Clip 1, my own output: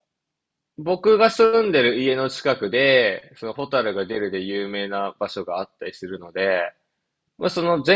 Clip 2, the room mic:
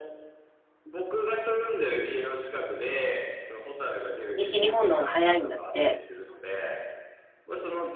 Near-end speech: present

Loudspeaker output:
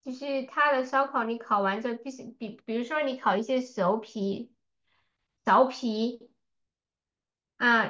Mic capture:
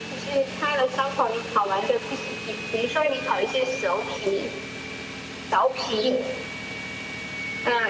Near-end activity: present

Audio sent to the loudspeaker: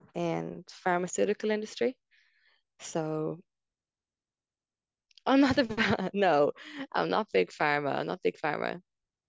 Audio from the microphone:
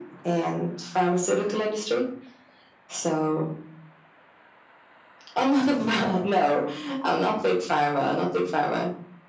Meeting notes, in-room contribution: none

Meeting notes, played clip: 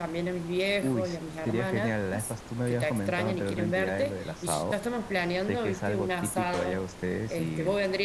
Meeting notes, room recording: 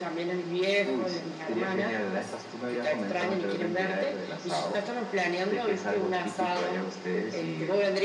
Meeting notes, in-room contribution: none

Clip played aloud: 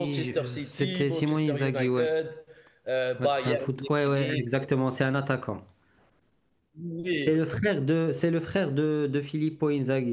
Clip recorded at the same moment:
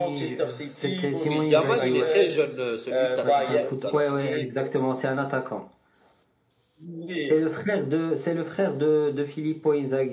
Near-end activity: present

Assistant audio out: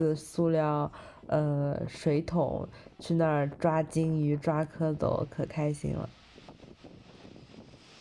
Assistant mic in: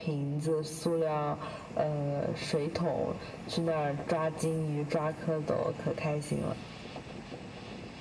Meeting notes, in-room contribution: none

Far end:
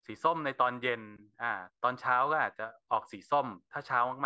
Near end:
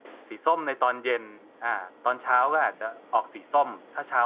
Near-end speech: none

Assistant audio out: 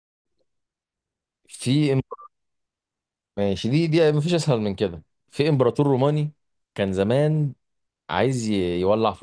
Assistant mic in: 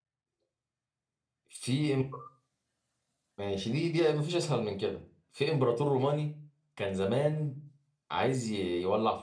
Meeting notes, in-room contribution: none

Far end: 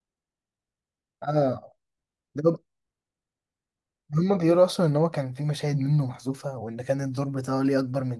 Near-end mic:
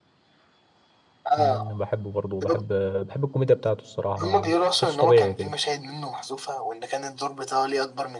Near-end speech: present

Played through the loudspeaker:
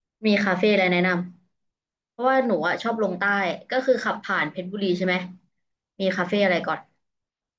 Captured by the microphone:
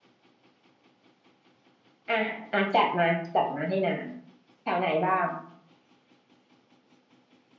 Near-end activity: present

